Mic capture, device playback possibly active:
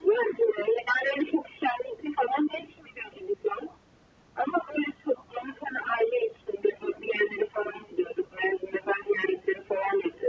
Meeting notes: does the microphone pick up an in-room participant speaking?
No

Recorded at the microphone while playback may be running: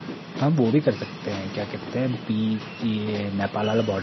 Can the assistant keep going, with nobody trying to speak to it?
No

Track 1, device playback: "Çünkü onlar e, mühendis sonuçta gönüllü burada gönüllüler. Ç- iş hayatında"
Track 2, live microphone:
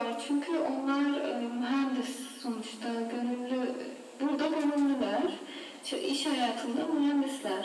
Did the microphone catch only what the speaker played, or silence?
Yes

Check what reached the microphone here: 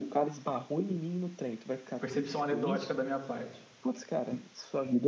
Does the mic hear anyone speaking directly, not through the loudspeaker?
Yes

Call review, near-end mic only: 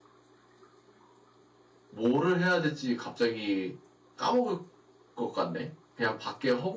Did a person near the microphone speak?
Yes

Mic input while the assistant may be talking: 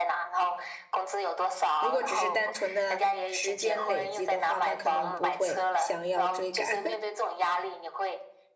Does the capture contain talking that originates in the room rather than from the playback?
Yes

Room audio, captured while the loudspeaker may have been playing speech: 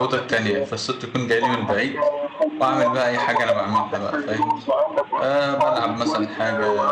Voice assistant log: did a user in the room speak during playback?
Yes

